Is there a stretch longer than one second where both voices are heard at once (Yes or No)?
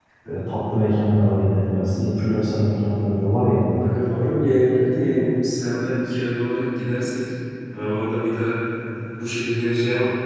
No